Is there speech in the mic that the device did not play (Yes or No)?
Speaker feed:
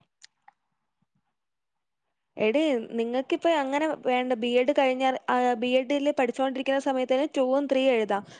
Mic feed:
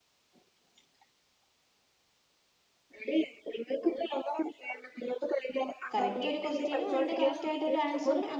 Yes